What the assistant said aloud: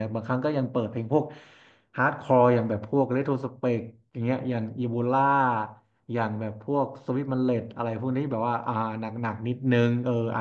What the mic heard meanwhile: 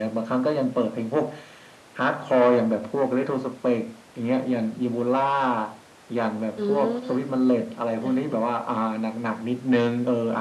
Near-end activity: present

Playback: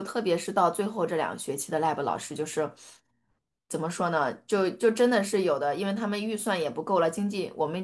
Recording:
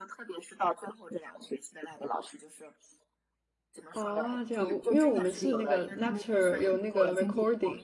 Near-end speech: present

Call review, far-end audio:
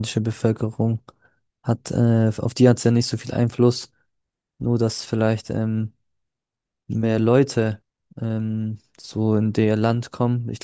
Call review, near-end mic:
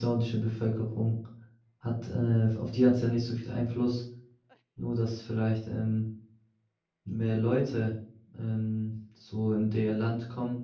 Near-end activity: none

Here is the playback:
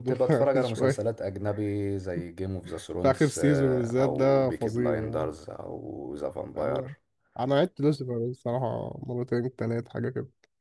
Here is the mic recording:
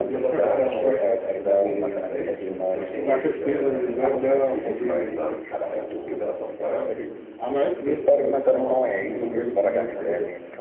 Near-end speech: present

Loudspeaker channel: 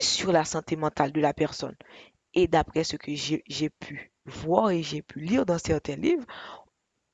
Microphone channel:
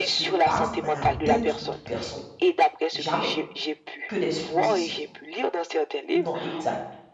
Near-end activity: present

